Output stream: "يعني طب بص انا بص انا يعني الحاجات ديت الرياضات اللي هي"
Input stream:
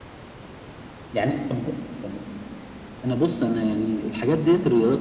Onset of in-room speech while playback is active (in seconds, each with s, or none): none